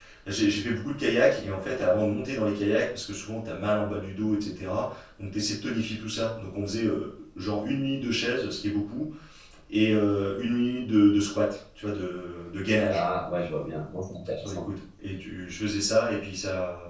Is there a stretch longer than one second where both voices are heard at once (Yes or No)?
No